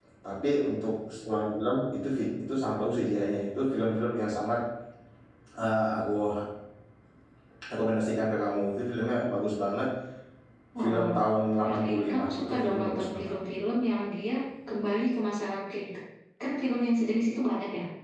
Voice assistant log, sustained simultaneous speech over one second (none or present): present